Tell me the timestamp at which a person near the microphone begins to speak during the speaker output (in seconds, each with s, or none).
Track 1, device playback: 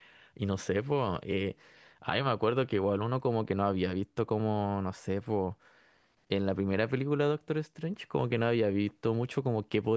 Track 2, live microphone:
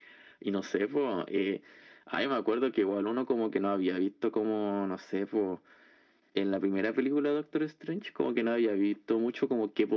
none